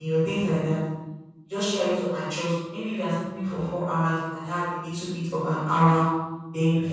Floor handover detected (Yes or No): No